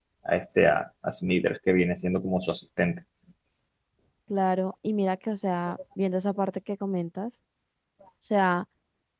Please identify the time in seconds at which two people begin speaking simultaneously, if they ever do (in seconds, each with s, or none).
none